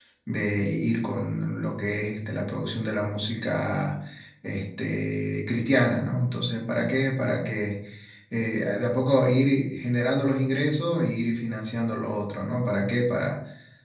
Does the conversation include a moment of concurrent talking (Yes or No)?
No